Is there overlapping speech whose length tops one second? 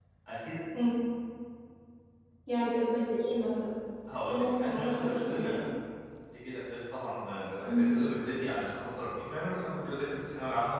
Yes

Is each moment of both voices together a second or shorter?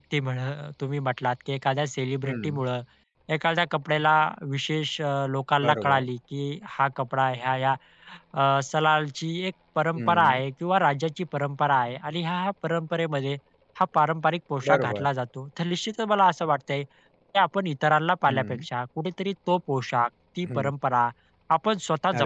Yes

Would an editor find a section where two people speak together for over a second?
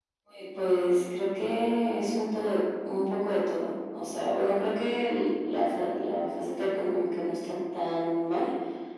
No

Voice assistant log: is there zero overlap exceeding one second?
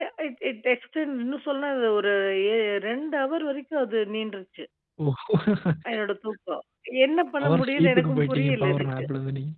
No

